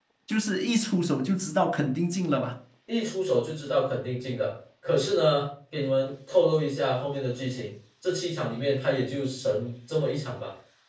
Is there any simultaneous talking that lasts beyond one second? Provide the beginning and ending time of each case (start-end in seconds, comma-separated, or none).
none